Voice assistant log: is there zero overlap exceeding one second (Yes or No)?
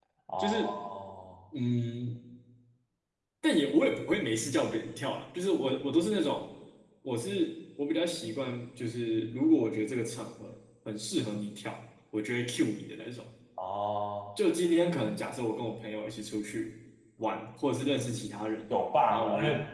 Yes